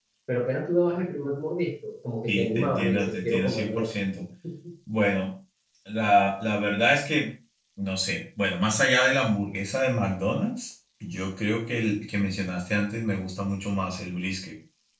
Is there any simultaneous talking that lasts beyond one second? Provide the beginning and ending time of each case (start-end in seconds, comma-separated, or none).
2.3-3.9